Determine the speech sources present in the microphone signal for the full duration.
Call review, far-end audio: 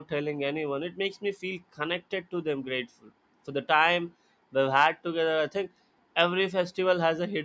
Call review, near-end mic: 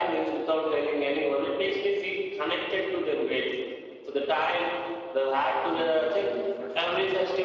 both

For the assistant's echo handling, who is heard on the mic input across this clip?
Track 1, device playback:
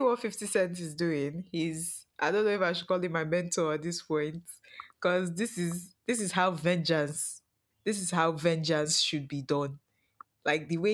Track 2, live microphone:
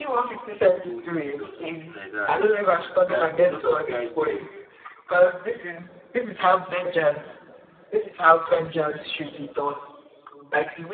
both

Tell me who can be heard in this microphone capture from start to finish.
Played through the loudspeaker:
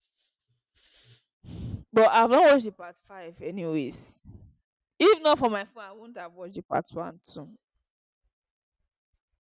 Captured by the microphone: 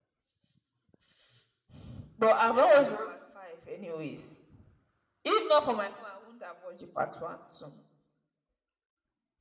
both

